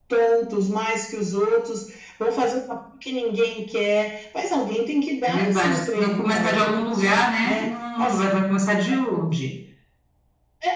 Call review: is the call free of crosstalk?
No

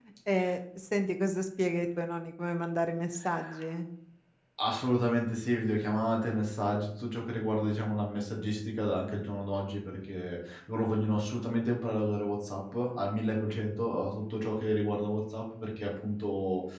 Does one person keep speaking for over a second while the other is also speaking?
No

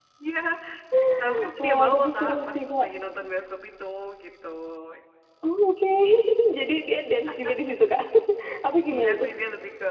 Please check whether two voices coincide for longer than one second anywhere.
Yes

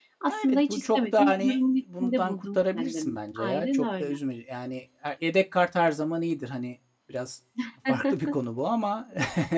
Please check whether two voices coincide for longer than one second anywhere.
Yes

